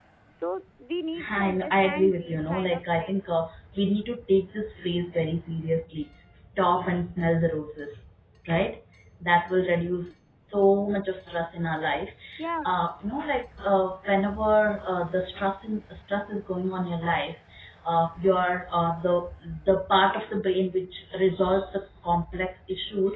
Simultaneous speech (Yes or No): Yes